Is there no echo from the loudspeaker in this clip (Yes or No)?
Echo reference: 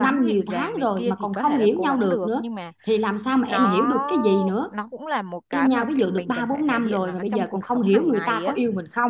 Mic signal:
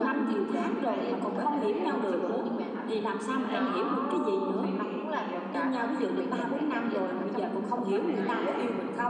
No